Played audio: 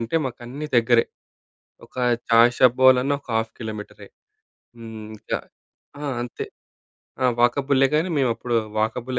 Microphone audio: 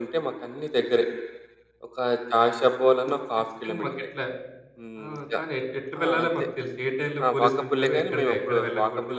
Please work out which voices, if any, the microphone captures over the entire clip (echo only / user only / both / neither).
both